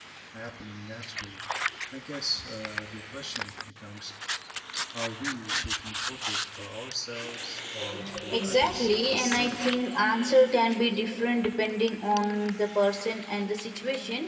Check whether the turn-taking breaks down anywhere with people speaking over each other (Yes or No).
Yes